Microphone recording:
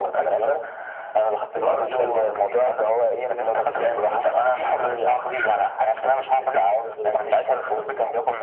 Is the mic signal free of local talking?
No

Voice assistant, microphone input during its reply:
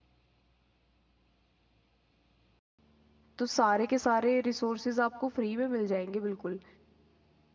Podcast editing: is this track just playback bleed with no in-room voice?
No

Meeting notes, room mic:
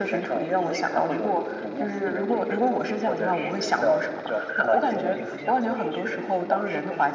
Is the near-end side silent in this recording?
No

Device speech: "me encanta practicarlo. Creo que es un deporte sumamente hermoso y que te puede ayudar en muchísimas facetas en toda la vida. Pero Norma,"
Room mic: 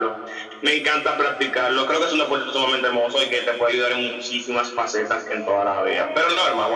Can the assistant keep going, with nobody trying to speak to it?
No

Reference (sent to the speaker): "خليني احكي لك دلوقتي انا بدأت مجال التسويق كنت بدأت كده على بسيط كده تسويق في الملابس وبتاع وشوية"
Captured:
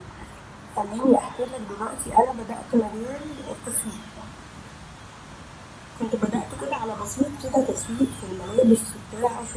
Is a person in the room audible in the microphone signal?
No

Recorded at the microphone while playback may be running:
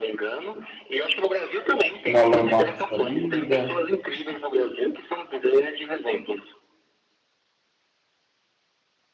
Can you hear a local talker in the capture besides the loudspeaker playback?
Yes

